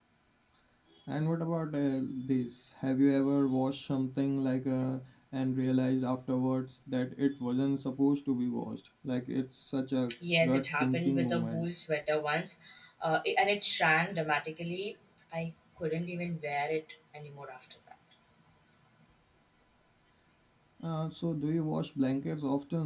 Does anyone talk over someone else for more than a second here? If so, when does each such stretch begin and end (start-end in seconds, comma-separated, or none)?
10.4-11.7